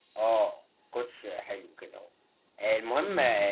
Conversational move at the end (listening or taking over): listening